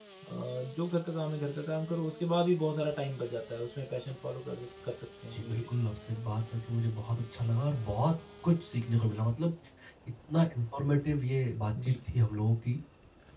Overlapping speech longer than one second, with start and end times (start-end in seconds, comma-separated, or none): none